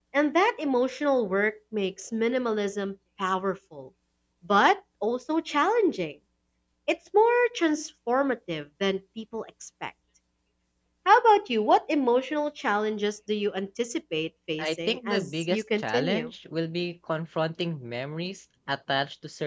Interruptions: present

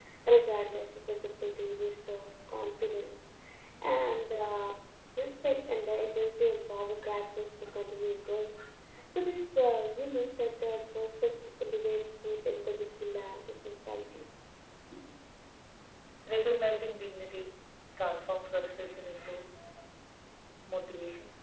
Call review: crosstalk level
none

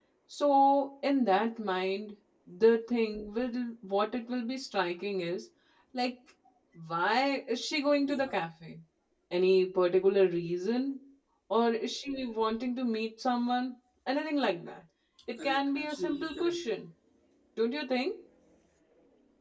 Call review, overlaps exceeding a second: present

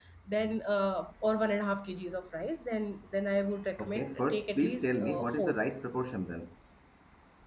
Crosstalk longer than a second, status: present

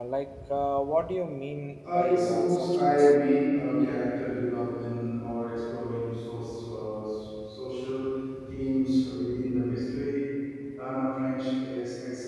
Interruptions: present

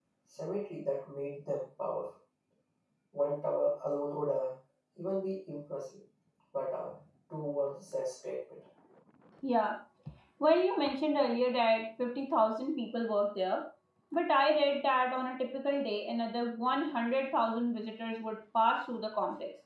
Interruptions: none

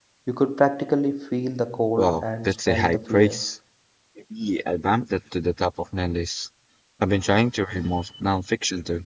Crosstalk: present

